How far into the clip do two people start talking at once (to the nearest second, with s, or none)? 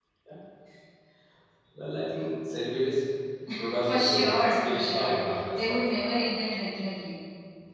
4 s